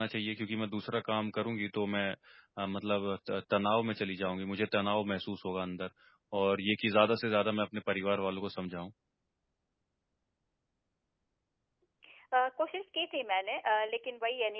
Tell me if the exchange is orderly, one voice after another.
Yes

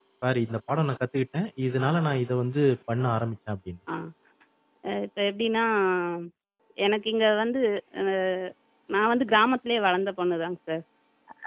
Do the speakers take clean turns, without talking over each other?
Yes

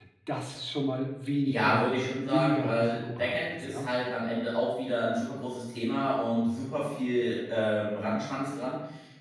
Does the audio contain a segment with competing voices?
Yes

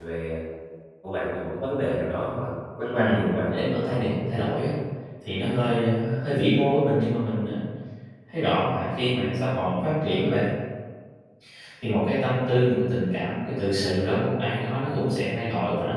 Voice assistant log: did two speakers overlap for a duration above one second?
Yes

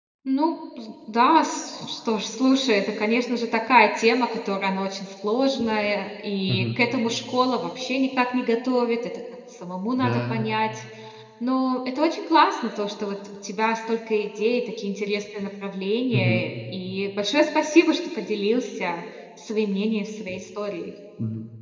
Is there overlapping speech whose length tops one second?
No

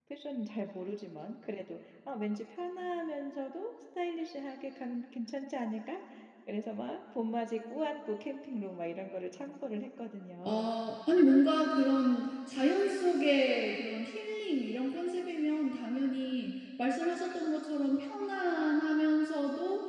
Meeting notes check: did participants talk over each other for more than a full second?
No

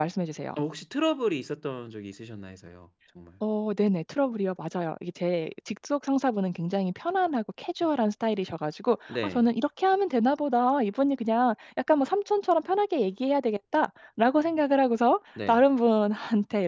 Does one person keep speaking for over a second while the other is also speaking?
No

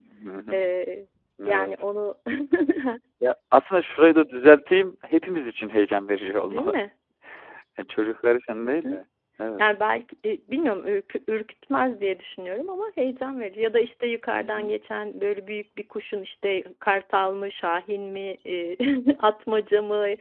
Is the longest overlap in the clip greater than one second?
No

